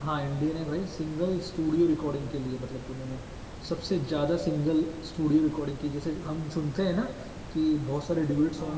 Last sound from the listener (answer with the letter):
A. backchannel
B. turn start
A